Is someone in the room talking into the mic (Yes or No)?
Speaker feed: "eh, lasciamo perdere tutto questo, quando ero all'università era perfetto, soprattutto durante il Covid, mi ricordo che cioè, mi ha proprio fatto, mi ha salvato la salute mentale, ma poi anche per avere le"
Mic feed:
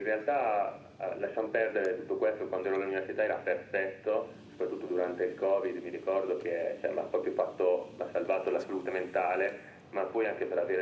No